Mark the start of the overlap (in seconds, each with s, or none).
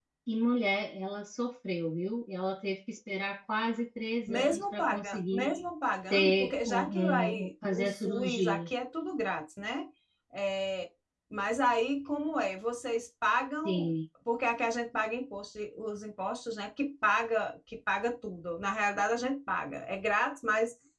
4.3 s